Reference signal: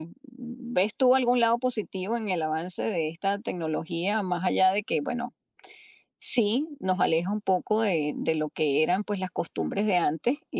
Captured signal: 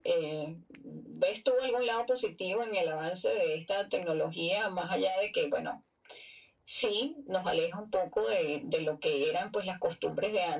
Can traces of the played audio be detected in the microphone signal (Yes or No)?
Yes